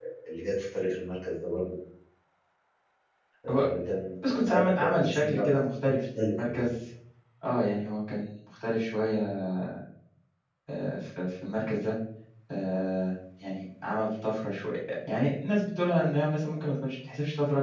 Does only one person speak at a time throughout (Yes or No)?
No